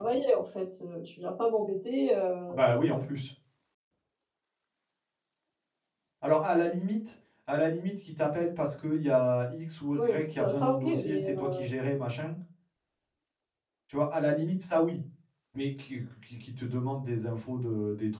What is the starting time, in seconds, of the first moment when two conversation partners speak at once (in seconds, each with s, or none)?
10.0 s